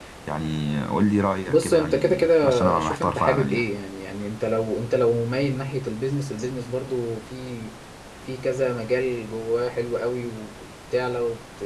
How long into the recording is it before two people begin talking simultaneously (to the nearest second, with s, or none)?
1 s